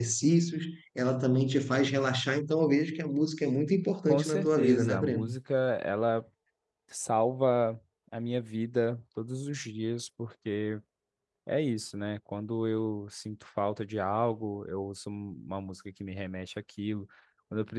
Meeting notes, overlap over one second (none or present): present